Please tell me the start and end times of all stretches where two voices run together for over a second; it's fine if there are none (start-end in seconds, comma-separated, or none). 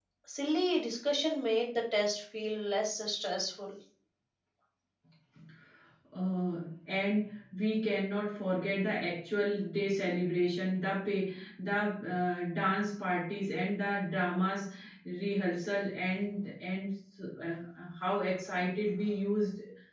none